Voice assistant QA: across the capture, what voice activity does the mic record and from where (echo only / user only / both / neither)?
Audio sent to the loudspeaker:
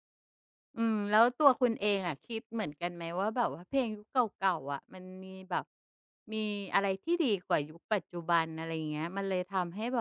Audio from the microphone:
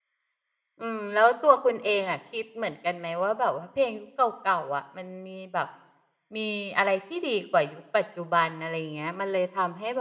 echo only